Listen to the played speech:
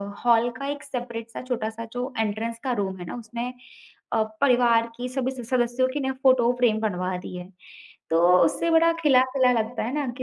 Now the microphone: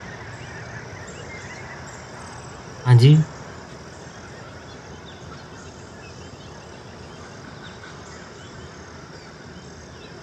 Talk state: user only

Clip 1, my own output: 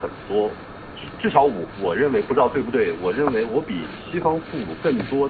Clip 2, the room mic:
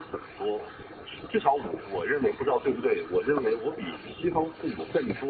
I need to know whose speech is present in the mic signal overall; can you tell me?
echo only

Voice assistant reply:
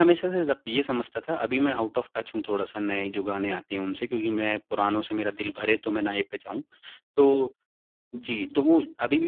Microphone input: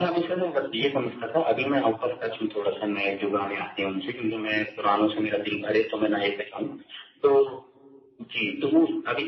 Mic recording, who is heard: echo only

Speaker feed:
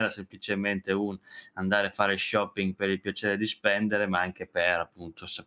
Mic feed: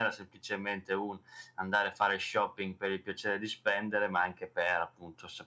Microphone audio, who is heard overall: echo only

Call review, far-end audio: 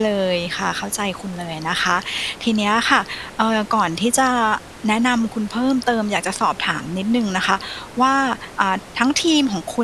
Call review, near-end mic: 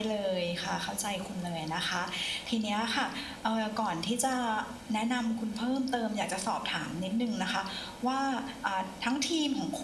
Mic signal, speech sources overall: echo only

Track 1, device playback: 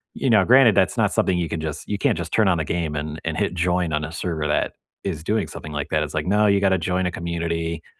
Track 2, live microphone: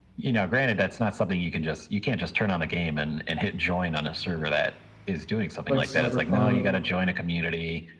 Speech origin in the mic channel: both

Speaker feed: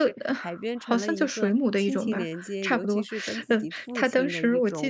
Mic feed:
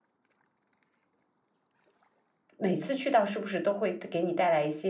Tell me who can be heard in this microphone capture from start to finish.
user only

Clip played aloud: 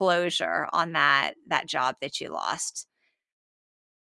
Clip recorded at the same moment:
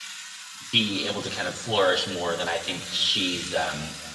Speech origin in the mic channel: user only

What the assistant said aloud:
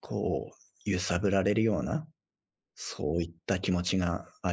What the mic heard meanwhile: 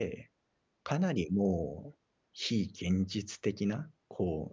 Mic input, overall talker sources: user only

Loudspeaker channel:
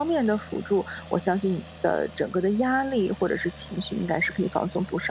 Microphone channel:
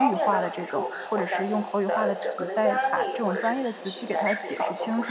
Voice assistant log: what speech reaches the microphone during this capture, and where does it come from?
both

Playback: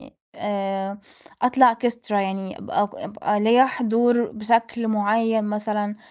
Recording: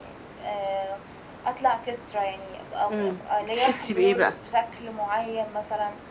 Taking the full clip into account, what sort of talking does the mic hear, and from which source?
both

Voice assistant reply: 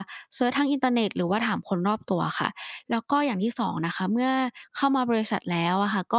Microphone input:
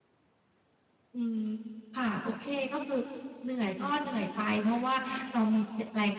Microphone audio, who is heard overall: user only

